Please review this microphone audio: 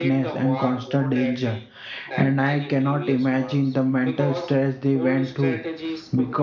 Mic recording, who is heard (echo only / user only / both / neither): both